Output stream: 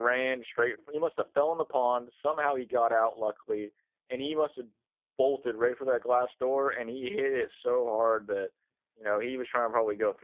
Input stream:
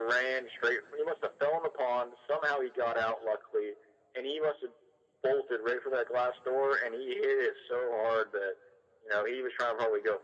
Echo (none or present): present